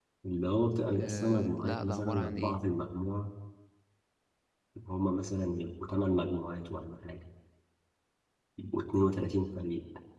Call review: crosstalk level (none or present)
present